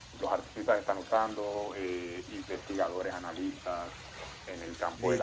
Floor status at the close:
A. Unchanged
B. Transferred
B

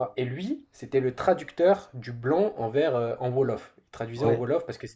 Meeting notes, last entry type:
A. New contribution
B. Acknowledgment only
B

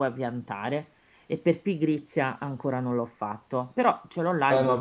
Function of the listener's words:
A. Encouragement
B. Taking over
B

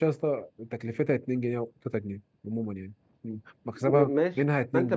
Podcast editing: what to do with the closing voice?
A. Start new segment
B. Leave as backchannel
A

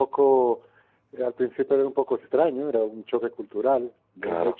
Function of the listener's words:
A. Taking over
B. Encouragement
B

